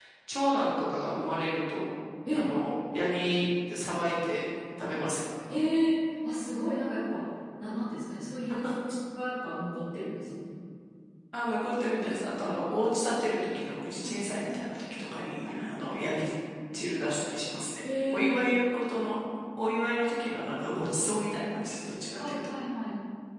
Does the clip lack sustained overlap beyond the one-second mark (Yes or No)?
Yes